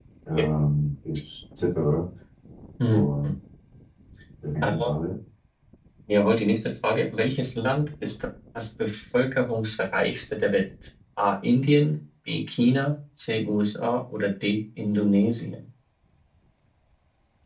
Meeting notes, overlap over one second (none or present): none